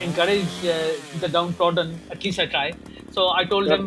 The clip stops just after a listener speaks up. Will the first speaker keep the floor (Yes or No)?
Yes